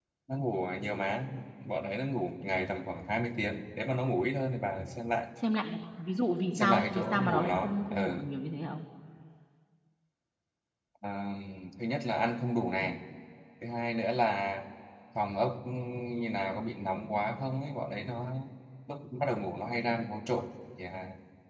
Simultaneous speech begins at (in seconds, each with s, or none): 6.5 s